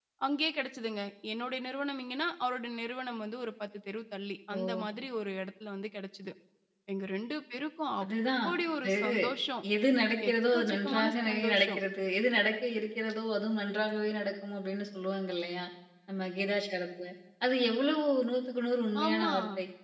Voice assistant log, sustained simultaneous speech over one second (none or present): present